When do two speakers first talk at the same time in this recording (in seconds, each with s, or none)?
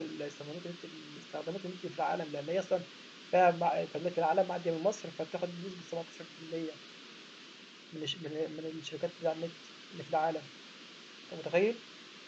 none